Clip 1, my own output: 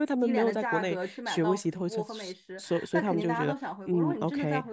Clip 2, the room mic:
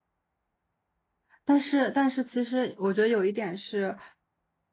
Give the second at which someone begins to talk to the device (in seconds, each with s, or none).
1.4 s